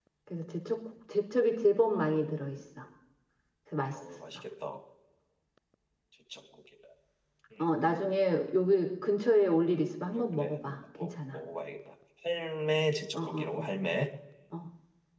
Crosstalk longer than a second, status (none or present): present